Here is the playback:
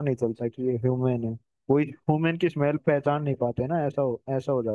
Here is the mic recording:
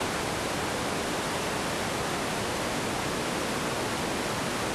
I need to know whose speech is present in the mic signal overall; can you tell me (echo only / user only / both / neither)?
neither